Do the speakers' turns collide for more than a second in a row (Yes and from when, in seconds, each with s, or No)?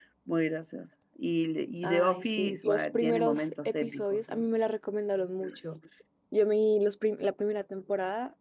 Yes, from 1.8 s